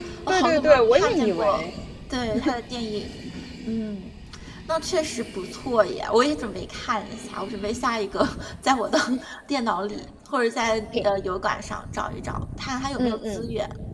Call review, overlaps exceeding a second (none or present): present